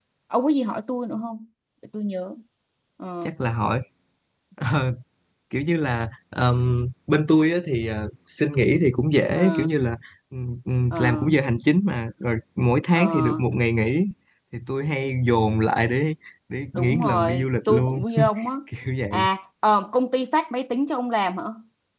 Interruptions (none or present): present